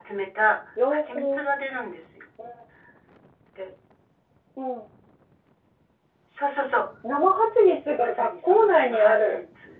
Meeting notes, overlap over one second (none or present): present